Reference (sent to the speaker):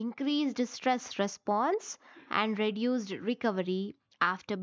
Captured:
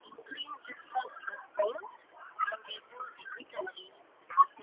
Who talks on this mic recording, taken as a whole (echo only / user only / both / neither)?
echo only